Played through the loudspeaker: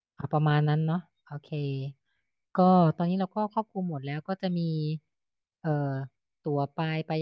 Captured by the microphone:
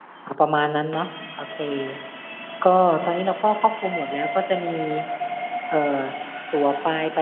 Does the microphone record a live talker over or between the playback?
No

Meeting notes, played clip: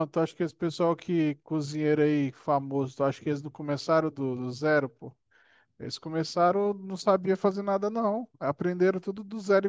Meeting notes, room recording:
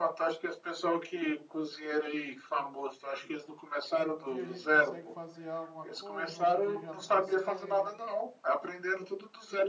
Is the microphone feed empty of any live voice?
No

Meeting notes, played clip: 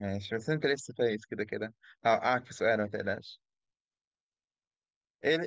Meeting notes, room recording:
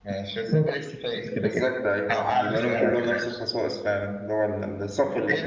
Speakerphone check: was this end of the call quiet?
No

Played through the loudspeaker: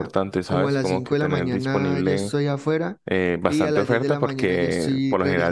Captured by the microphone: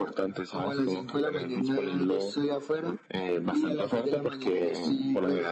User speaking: No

